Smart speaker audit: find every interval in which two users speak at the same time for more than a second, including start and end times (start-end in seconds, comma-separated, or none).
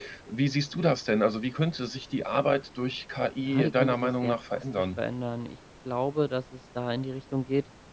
3.4-5.0